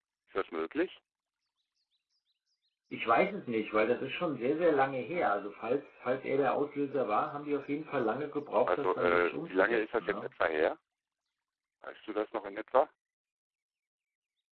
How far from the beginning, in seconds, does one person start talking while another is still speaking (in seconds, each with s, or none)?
8.7 s